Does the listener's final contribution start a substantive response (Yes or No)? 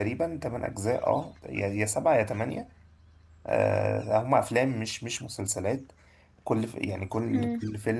No